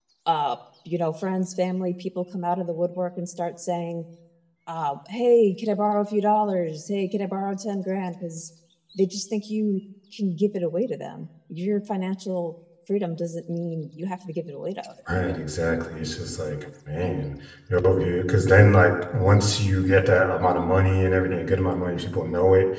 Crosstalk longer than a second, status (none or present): none